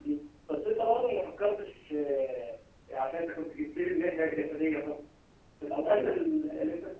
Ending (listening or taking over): listening